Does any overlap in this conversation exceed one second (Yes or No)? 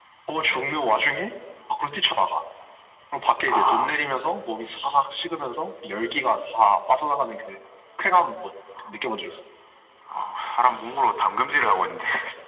No